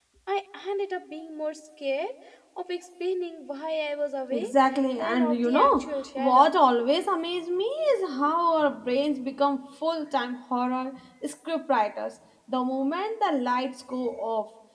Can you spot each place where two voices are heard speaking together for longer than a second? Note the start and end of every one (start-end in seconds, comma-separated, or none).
5.0-6.5